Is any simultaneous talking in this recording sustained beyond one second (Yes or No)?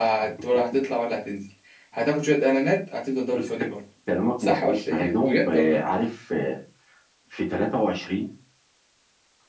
Yes